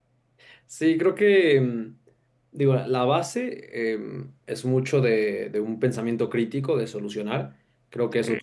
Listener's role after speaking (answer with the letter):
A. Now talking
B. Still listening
B